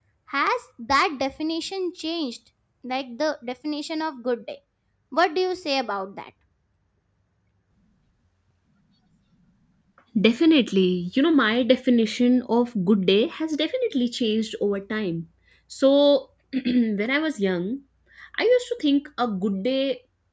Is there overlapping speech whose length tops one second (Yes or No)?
No